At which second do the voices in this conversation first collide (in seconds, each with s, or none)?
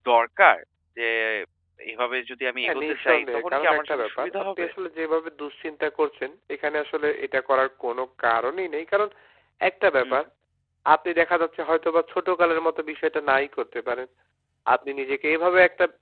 2.6 s